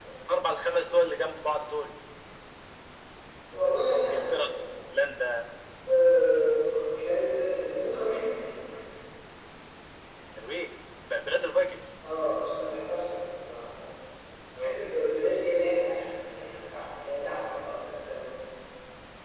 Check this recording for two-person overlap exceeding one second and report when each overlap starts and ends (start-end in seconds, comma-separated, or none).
none